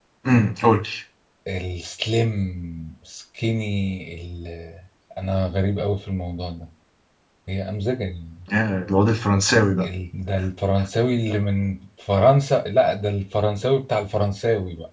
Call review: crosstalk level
none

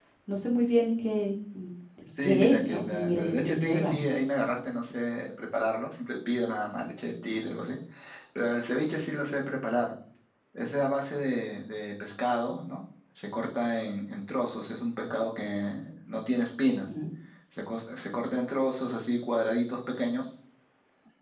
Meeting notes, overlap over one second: present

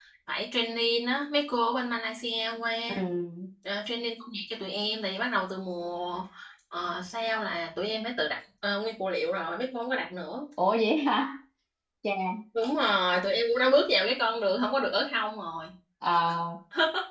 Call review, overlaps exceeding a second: none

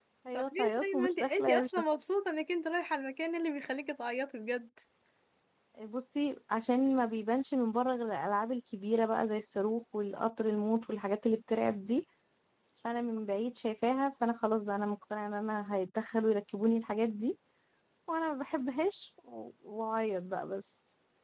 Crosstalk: present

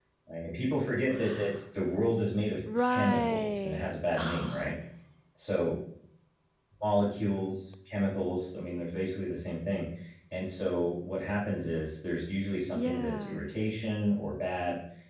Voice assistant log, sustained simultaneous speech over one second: present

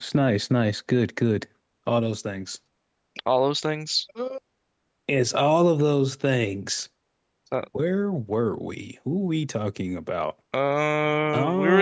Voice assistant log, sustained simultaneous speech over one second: none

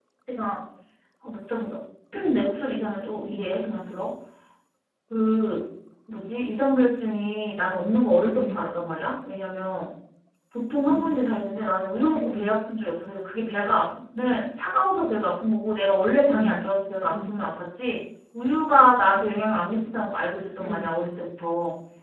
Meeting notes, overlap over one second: none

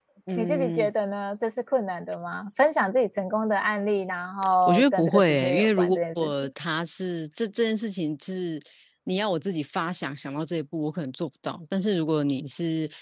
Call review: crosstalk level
present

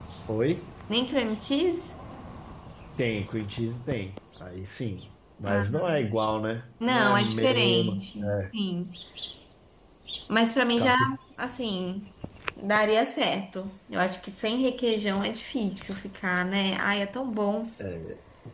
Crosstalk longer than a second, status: present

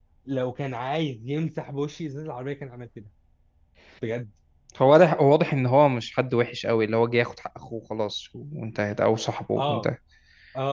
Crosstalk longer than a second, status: none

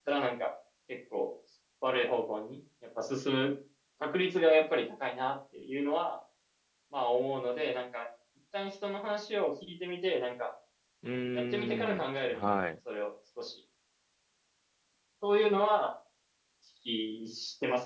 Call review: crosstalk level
present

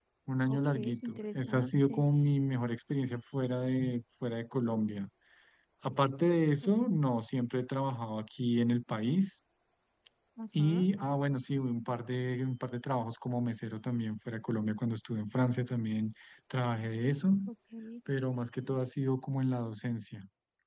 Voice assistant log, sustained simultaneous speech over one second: present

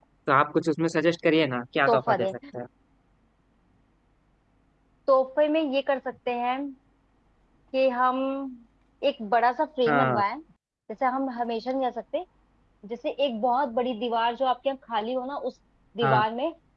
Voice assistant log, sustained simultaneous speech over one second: none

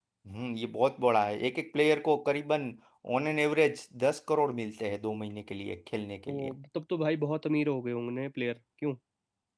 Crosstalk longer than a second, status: none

